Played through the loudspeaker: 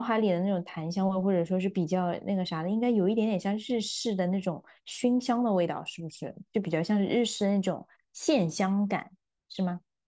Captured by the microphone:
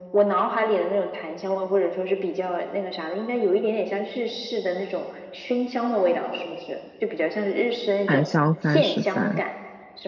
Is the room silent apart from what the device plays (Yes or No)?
No